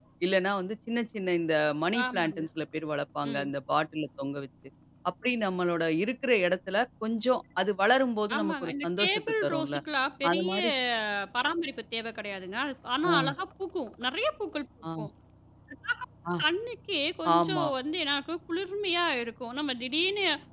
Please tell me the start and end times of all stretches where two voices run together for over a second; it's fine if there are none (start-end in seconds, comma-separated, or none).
8.4-9.8